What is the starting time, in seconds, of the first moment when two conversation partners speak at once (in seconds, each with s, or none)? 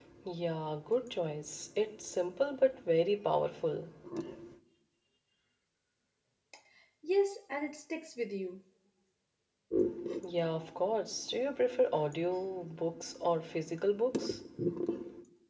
none